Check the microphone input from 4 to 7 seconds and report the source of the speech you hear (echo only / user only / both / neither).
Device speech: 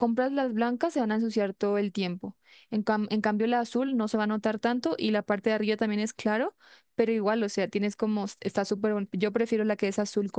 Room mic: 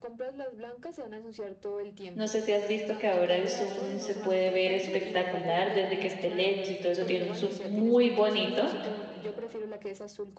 both